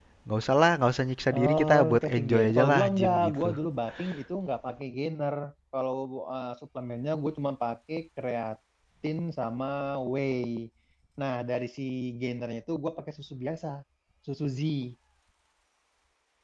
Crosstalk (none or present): present